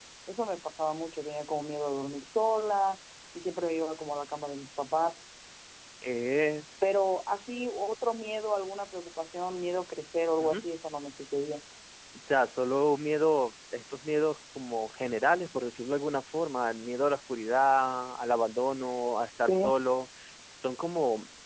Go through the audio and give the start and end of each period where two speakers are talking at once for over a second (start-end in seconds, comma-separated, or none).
none